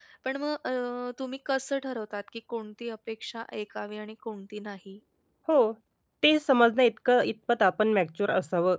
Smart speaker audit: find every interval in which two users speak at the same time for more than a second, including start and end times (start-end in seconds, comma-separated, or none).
none